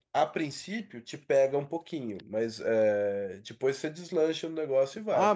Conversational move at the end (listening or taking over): taking over